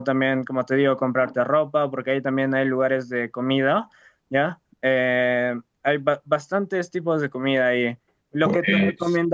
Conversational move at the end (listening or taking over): listening